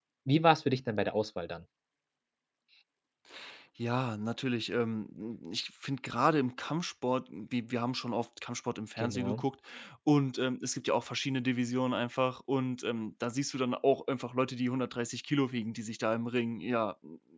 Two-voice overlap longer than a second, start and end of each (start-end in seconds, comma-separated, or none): none